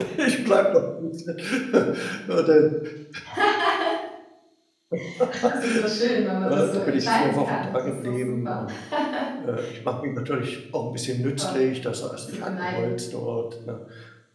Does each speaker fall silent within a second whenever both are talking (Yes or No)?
No